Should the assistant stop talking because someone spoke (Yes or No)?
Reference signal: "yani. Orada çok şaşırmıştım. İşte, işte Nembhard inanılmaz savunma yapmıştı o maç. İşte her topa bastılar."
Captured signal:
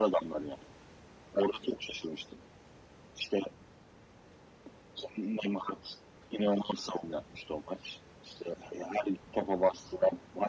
No